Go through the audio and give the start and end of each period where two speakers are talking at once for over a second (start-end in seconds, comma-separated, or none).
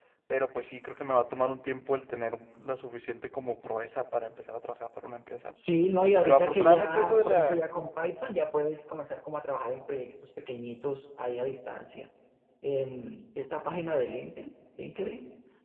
6.2-7.7